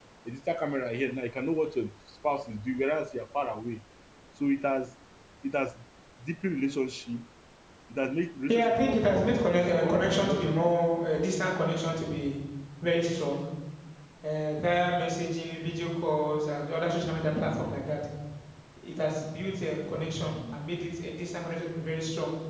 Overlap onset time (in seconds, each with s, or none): 8.5 s